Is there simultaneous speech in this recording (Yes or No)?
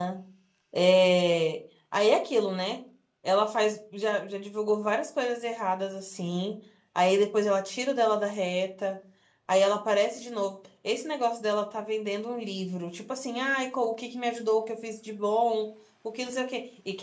No